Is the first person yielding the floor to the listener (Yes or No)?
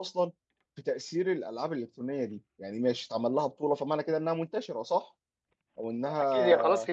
Yes